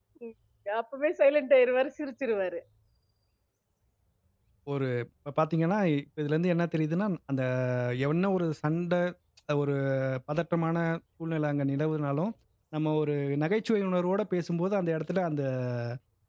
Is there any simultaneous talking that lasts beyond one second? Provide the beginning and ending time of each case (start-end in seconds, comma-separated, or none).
none